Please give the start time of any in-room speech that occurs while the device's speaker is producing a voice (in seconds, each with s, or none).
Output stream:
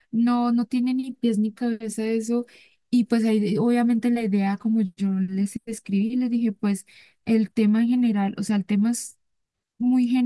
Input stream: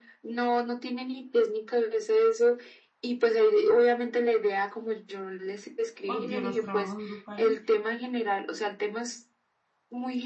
6.0 s